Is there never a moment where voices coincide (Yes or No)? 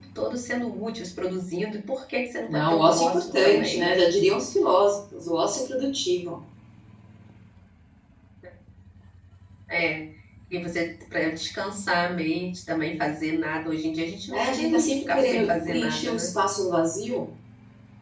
No